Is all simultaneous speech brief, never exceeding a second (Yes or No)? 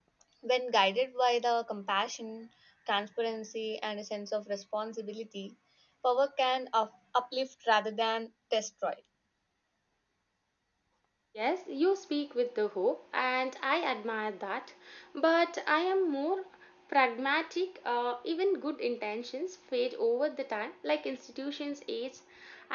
Yes